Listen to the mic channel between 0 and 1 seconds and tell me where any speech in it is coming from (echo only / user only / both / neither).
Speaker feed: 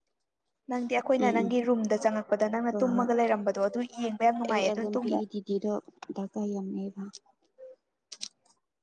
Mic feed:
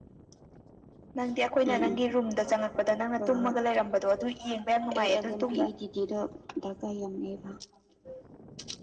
neither